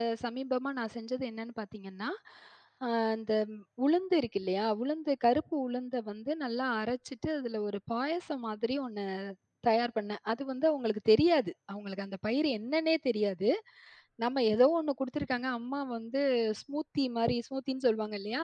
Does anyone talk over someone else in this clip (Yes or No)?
No